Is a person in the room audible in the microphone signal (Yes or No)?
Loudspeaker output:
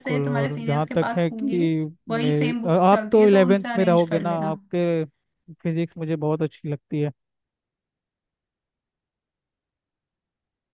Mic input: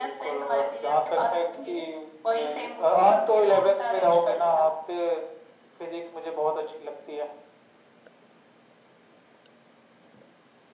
No